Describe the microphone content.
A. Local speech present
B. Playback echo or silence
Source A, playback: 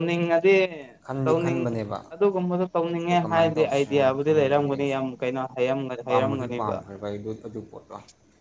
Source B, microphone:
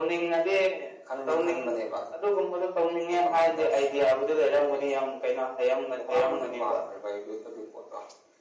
B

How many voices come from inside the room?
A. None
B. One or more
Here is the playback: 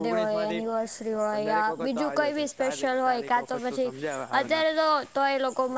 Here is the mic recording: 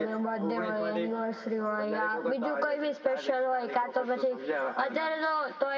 A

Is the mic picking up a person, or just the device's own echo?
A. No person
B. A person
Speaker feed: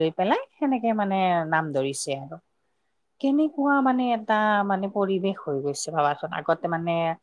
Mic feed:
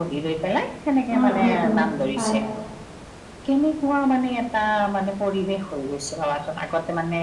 B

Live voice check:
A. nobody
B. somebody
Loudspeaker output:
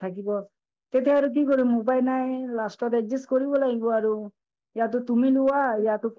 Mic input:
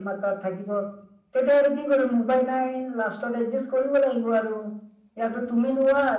A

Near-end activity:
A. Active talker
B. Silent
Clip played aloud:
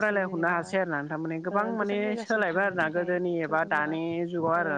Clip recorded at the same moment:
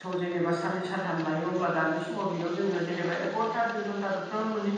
A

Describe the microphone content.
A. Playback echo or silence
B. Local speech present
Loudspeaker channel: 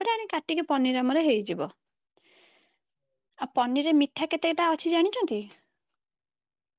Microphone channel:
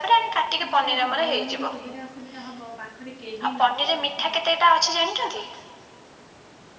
B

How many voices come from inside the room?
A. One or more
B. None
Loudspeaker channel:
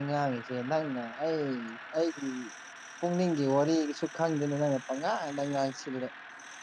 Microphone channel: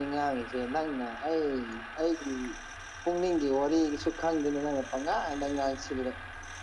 B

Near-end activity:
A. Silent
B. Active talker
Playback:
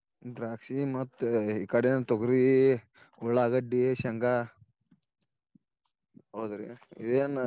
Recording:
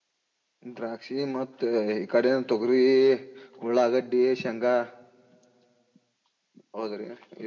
A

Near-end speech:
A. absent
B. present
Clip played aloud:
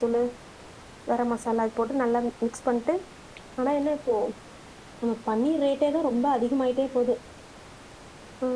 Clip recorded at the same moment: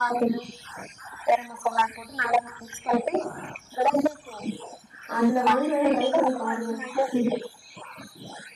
B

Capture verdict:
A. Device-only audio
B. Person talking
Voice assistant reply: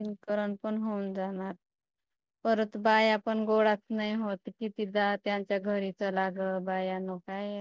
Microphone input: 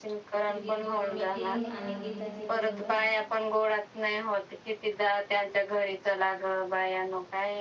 B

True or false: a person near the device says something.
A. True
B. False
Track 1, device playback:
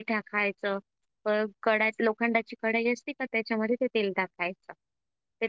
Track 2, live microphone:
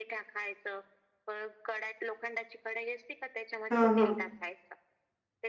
A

